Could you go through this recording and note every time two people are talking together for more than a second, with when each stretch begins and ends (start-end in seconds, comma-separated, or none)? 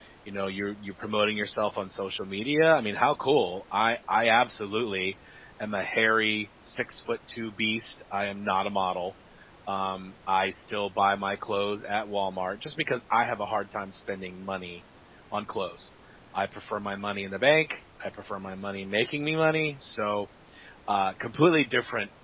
none